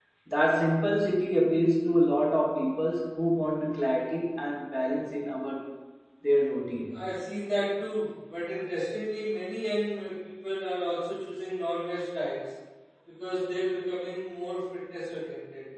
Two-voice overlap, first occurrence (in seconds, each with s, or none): none